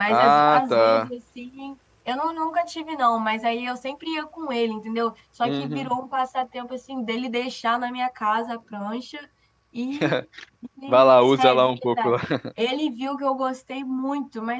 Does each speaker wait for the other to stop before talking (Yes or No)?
No